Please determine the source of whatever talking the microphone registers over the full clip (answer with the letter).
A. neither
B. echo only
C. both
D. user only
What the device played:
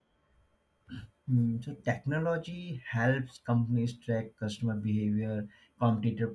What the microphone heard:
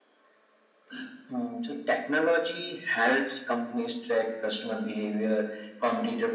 B